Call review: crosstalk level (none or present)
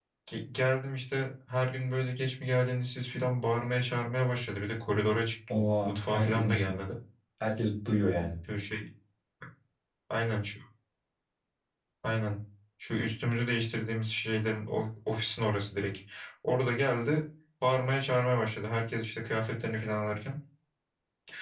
present